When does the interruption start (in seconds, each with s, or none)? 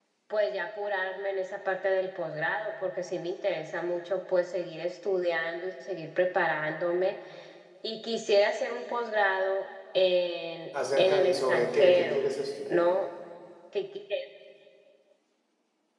10.7 s